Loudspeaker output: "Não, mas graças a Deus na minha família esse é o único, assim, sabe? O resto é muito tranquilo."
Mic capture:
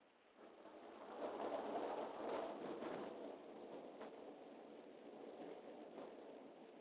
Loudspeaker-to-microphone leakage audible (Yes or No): No